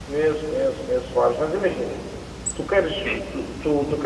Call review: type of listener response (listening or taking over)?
listening